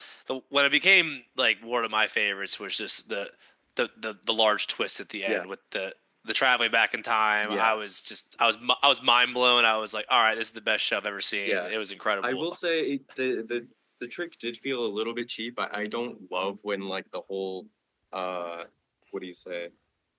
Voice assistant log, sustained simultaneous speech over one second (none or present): none